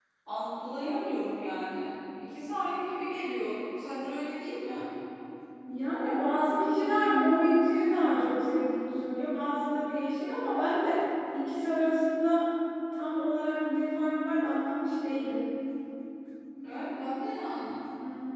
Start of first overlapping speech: none

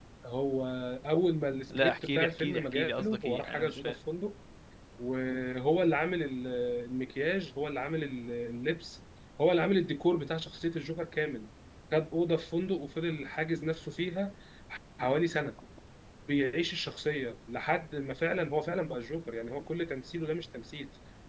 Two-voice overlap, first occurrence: 1.7 s

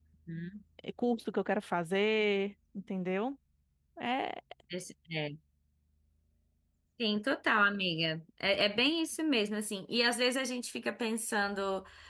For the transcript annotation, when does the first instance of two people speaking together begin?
none

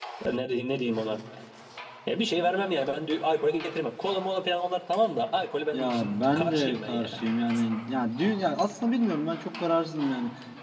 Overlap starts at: 5.7 s

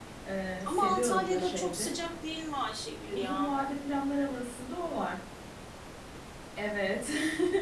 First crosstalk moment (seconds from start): 0.6 s

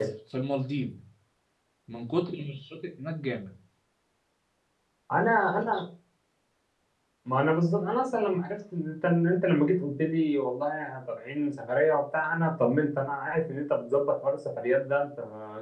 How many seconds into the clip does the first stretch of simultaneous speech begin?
none

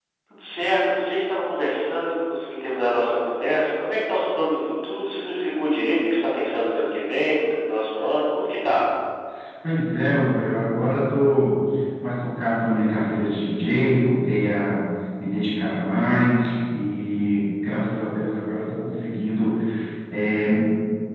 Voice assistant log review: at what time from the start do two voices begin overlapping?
none

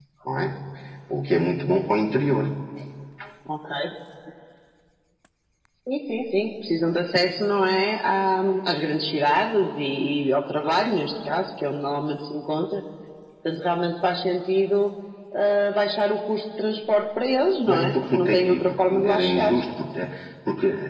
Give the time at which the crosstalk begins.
17.7 s

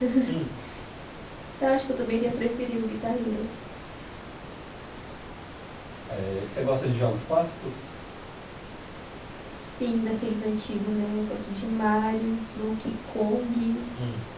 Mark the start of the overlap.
none

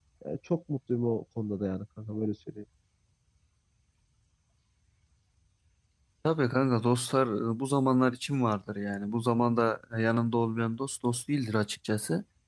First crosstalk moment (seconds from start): none

